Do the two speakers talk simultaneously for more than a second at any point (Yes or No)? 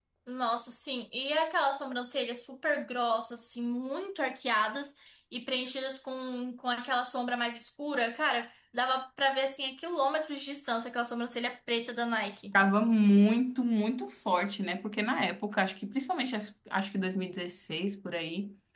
No